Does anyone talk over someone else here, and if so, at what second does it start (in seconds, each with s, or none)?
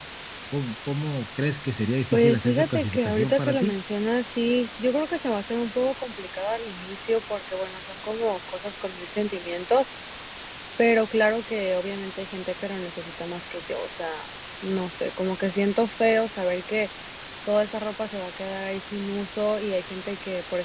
2.1 s